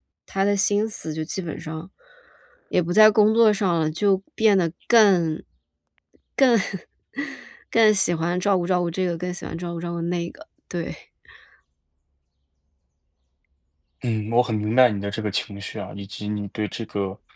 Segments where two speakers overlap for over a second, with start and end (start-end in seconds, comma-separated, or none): none